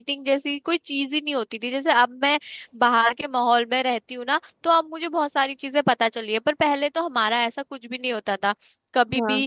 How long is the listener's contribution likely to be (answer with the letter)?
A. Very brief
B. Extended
A